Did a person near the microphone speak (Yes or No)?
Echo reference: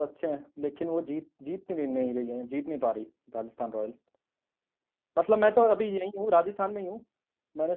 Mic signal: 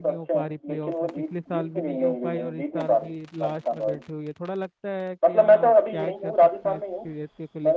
Yes